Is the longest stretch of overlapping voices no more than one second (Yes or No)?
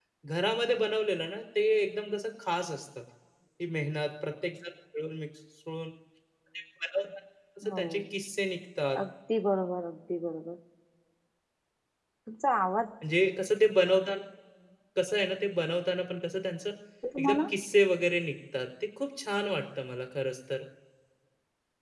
Yes